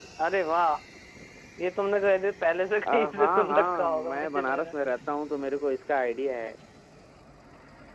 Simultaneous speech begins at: 3 s

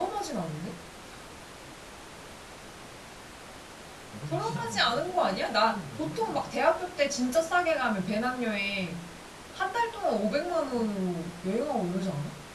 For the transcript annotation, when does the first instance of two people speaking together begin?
4 s

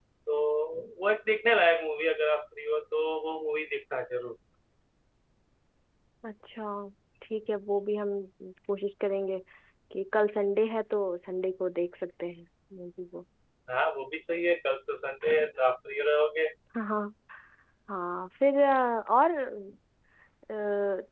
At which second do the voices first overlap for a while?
none

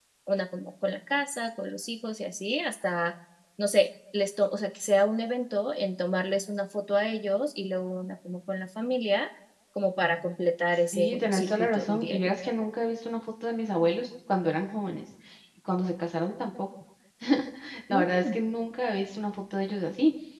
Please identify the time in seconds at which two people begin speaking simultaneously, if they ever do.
11 s

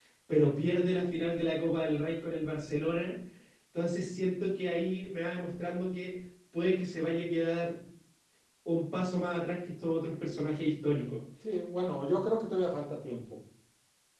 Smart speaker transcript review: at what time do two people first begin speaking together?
none

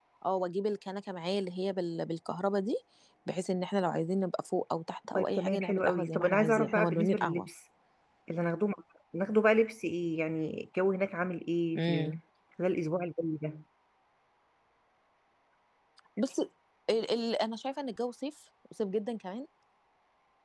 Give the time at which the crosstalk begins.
5 s

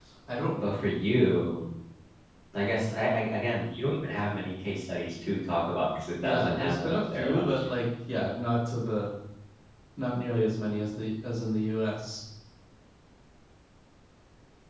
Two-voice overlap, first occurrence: 6 s

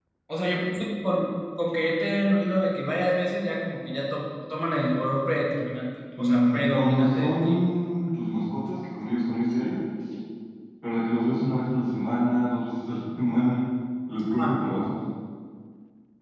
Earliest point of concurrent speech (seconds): 6 s

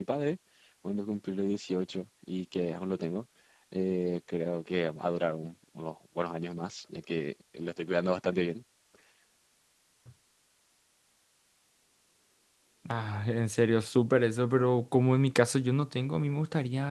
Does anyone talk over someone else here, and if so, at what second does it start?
none

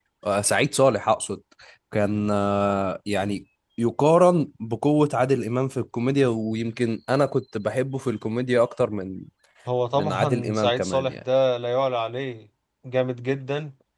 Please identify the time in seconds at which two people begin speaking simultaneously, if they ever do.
10 s

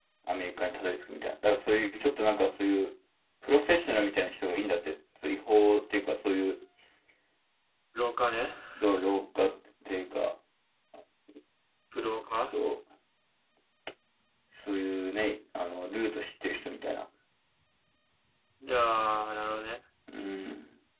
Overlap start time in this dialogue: none

